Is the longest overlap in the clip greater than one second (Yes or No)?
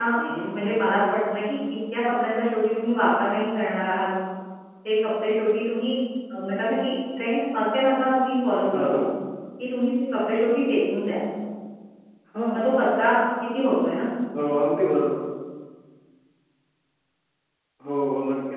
No